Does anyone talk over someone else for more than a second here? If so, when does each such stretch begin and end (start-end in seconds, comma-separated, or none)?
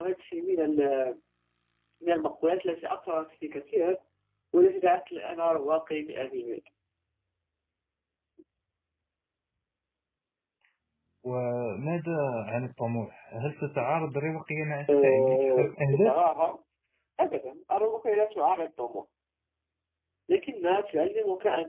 14.9-16.1